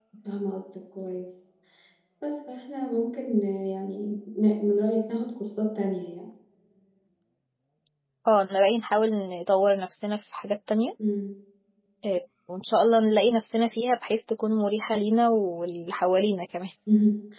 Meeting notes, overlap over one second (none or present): none